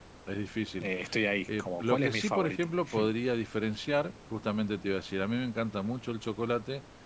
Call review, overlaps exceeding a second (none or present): present